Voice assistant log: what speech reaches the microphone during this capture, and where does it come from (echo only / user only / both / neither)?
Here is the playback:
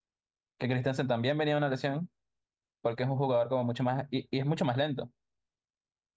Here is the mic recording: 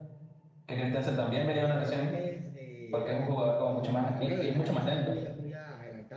both